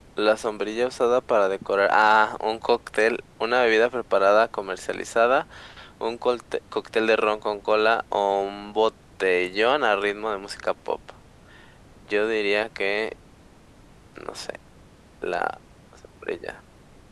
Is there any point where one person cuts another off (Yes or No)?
No